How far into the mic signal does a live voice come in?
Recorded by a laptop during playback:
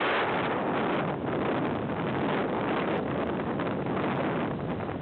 none

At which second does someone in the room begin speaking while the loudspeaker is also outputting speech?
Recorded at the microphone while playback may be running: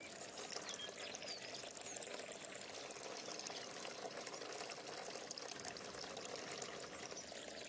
none

